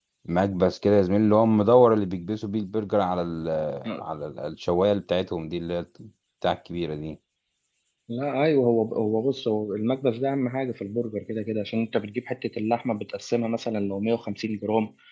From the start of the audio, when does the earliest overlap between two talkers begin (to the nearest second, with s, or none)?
none